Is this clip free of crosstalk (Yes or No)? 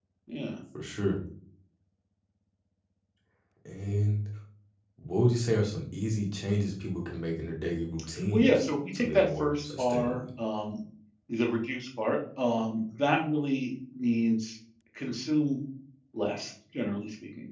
No